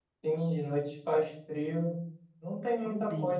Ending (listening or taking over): listening